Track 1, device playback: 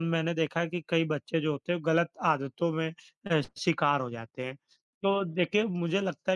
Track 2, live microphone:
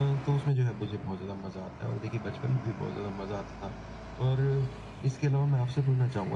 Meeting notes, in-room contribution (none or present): present